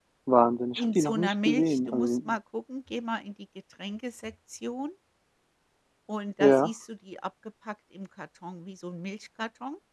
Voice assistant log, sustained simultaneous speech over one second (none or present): present